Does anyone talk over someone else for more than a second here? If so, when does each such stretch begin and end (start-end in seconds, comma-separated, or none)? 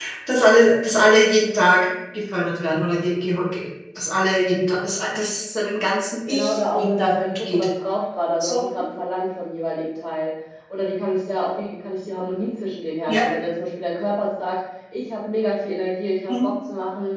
6.3-7.7